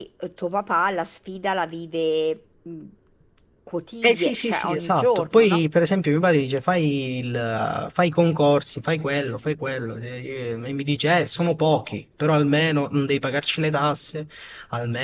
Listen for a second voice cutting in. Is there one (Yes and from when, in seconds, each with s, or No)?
Yes, from 4.0 s